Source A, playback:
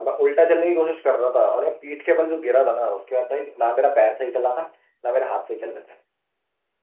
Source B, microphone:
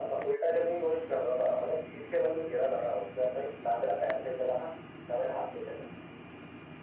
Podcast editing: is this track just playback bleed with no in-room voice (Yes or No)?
Yes